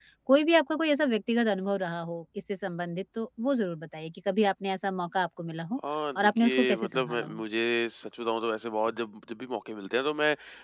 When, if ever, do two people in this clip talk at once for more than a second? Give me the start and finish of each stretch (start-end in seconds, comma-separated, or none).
6.2-7.4